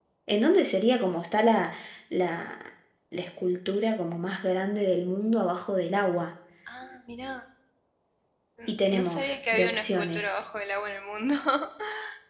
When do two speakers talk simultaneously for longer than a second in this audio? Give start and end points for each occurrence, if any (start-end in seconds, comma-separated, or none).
8.7-10.4